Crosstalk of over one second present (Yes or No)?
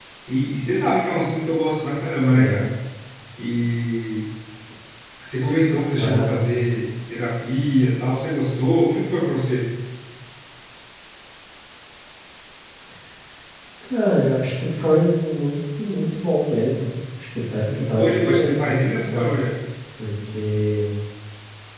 Yes